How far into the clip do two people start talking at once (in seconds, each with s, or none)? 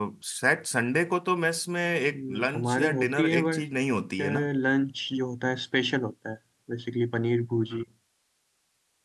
2.1 s